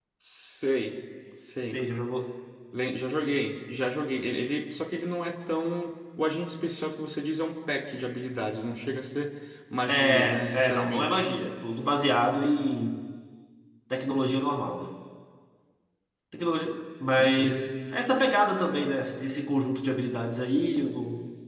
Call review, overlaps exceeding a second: present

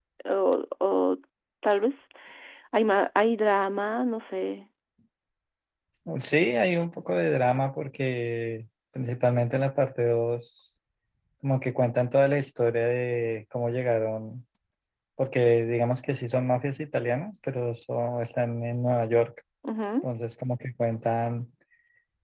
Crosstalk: none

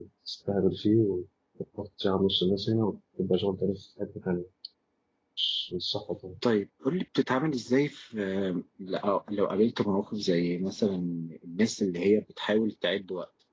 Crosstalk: none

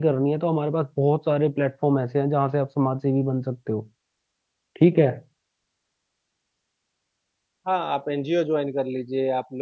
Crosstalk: none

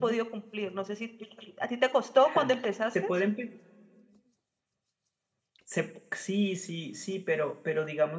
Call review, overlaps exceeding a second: none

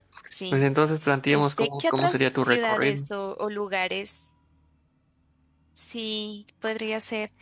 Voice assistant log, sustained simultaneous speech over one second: present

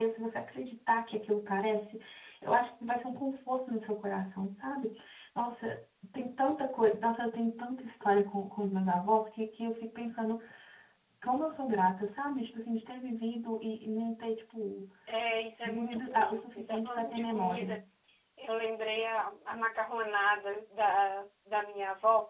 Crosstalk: present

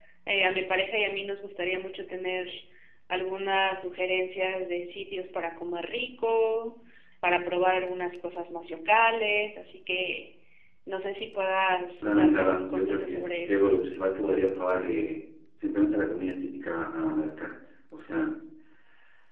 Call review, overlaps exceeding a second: present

